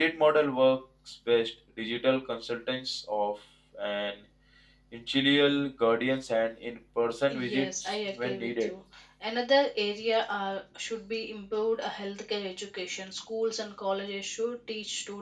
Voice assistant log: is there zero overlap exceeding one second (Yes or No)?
No